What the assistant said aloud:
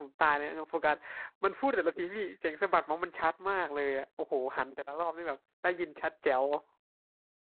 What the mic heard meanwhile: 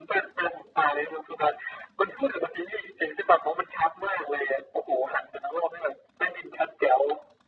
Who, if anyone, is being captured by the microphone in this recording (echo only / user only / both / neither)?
echo only